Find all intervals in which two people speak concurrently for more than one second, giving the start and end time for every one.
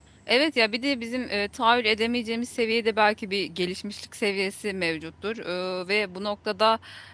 none

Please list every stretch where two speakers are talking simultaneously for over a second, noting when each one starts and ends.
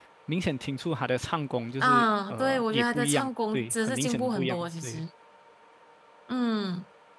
1.8-5.0

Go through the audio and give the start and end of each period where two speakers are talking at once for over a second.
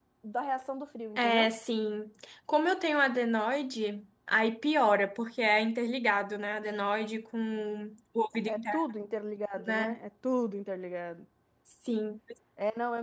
none

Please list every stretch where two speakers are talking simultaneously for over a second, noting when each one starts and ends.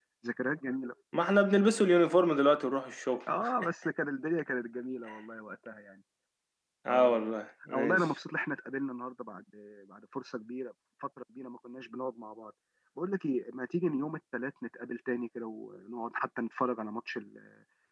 none

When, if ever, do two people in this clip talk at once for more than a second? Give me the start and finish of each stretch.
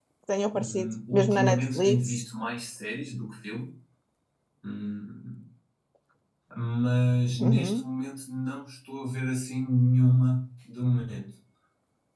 0.5-2.2

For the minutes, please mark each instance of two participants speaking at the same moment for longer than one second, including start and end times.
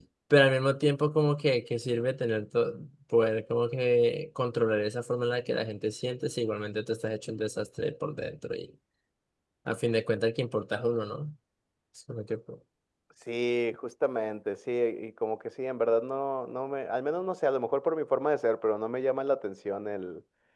none

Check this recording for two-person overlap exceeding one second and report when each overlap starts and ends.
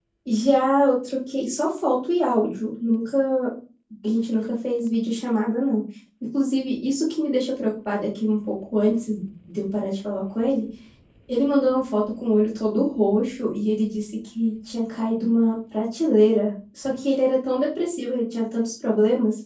none

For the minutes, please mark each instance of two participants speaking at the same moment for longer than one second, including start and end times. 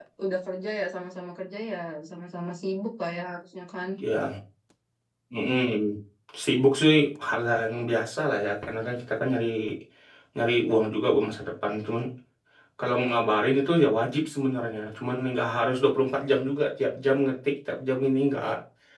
none

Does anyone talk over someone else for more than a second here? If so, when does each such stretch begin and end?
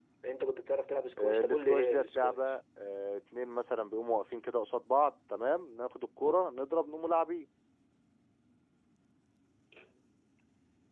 1.2-2.4

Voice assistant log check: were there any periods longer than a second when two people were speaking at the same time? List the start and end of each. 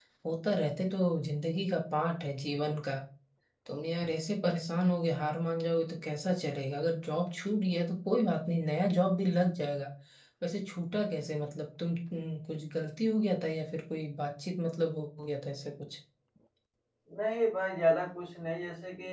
none

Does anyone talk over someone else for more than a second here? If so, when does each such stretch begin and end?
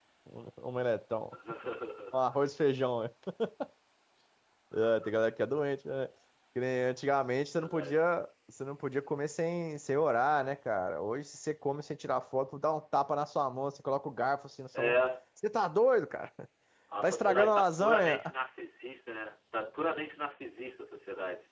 17.0-18.2

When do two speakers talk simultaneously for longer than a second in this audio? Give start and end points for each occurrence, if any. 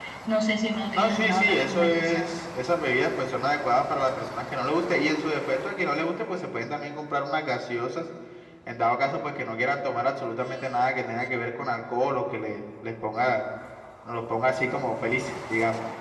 0.9-2.3

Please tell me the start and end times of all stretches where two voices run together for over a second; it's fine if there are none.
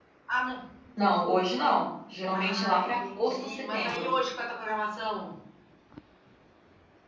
2.3-4.1

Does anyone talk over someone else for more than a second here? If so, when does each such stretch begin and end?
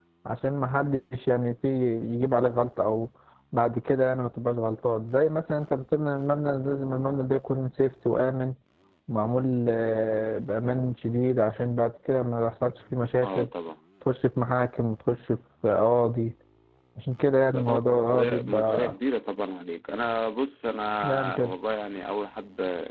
17.5-18.9

